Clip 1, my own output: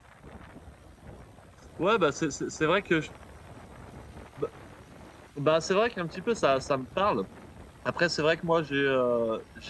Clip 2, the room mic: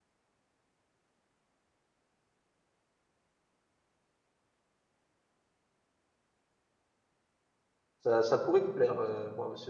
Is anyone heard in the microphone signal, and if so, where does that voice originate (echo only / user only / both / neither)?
user only